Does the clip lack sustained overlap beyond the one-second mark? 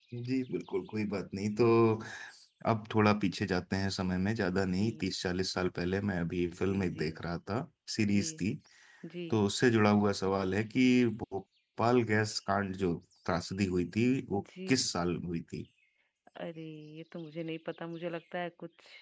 Yes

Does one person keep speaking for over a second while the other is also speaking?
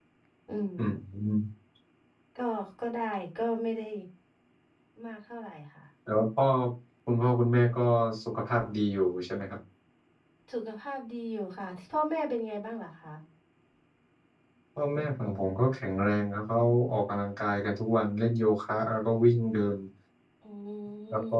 No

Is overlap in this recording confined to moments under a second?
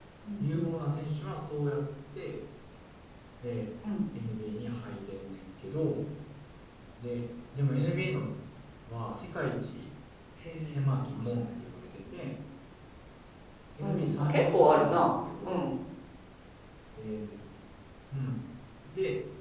No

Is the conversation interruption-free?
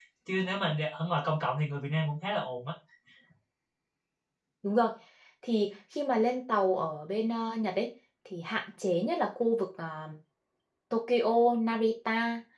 Yes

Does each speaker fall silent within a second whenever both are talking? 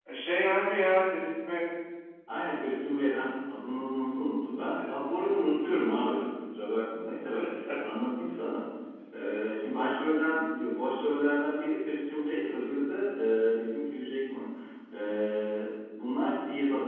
Yes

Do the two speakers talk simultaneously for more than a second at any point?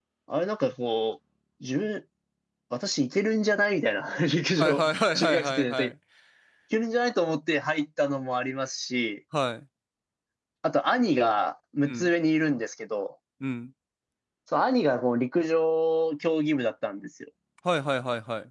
Yes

